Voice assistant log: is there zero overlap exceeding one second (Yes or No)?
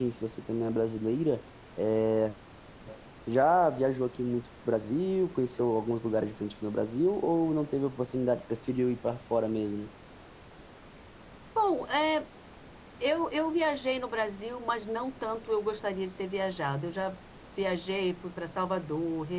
Yes